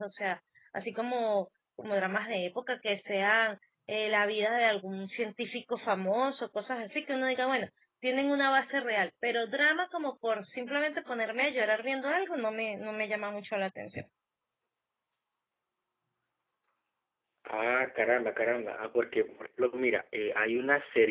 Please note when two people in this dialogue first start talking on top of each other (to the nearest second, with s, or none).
none